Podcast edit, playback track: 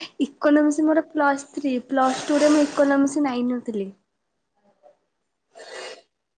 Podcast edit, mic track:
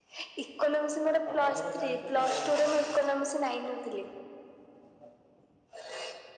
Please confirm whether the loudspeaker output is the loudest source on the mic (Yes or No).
Yes